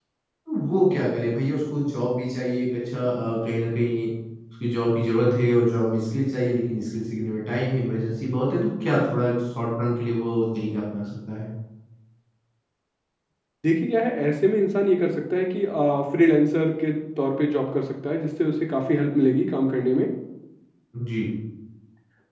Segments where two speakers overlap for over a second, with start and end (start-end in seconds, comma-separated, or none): none